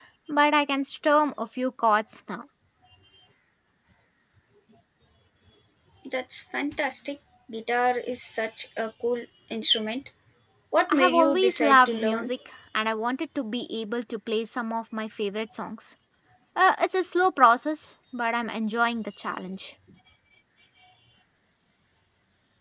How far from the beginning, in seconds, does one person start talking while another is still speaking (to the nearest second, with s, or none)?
11 s